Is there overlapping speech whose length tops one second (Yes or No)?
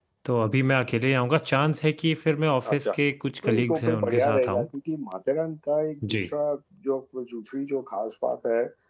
Yes